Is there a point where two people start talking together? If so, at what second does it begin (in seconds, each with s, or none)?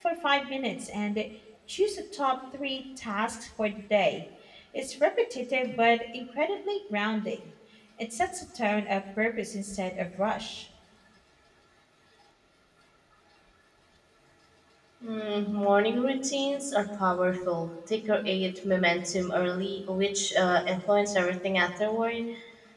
none